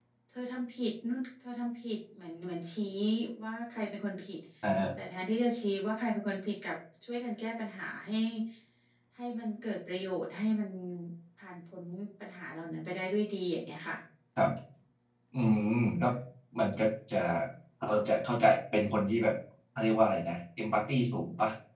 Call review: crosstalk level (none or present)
none